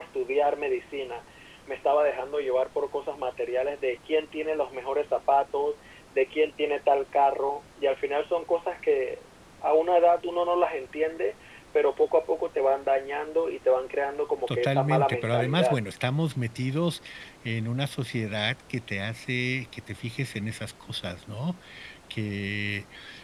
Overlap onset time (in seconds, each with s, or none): 14.5 s